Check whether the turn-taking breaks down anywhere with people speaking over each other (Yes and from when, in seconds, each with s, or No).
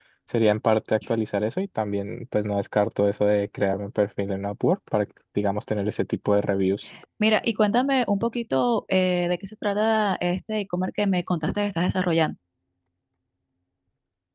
No